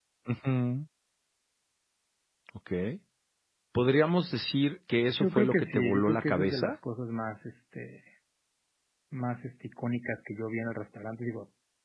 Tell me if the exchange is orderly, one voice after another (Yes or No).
No